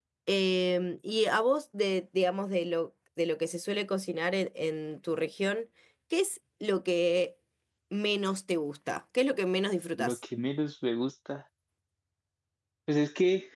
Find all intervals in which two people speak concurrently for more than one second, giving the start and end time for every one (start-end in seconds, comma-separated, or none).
none